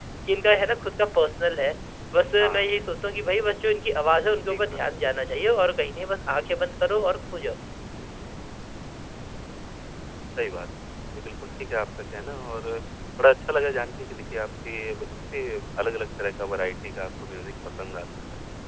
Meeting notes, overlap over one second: none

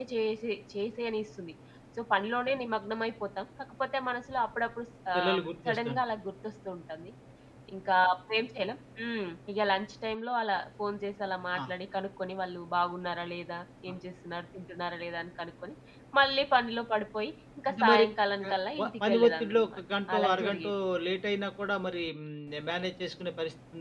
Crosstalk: present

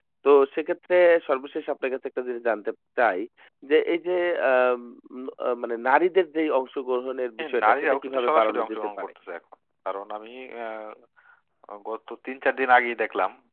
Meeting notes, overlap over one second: present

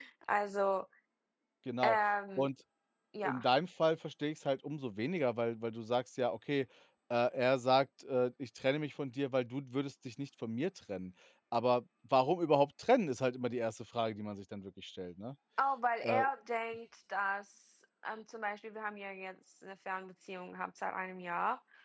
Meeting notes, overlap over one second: none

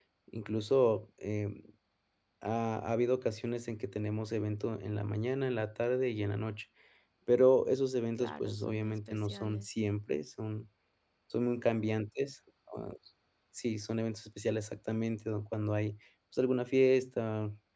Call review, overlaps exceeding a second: present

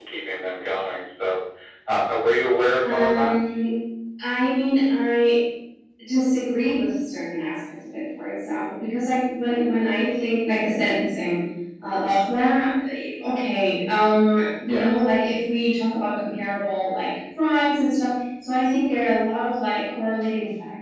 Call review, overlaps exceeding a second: none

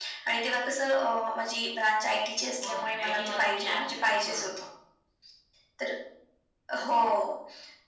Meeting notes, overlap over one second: present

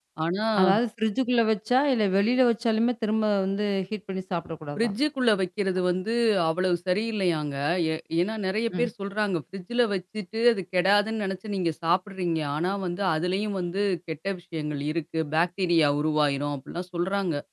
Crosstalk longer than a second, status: none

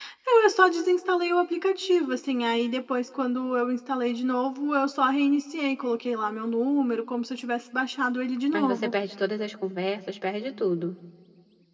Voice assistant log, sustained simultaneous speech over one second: none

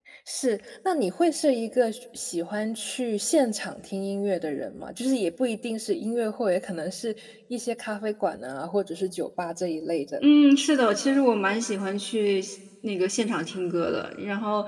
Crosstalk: none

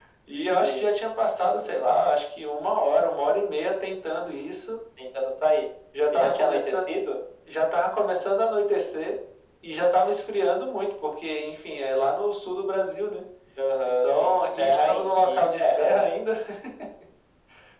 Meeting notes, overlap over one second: present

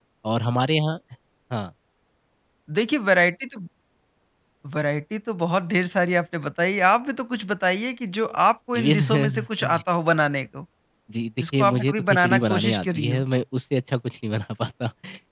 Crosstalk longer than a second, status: present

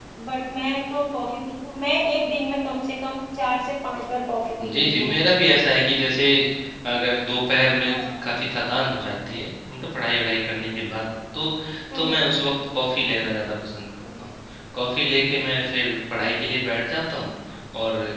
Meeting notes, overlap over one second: none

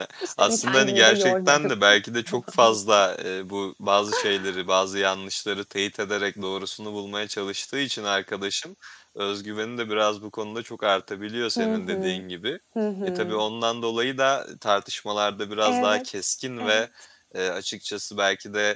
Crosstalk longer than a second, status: present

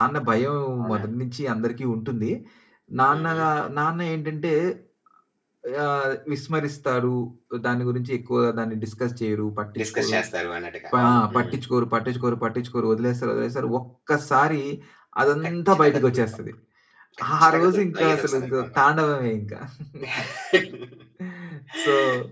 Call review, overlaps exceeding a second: present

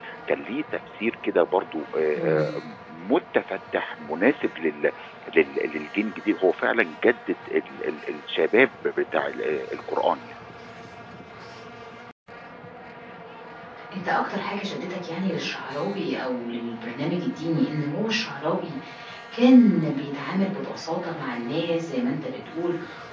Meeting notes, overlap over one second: none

